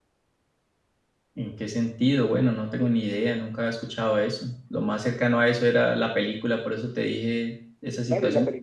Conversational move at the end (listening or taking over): taking over